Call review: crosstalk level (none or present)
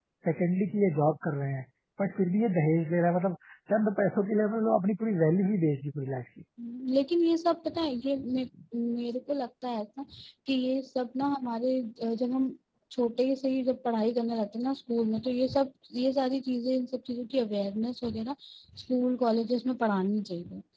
none